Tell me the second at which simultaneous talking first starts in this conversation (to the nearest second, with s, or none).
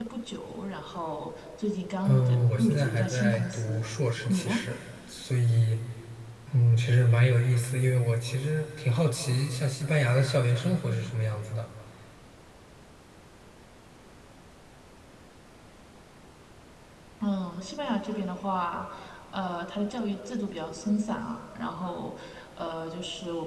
2 s